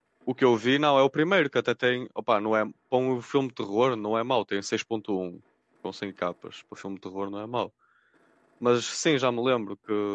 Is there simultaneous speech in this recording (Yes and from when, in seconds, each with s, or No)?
No